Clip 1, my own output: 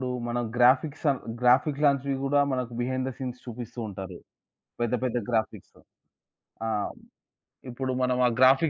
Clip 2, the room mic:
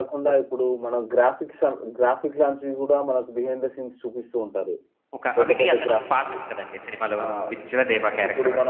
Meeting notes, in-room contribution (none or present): present